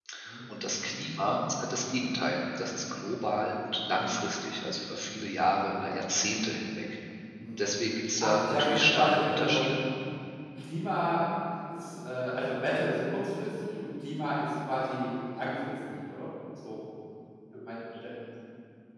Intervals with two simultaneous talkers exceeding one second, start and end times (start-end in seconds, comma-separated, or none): 8.2-9.7